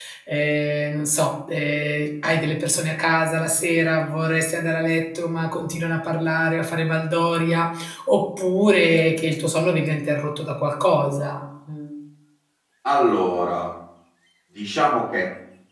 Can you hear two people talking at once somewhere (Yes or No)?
No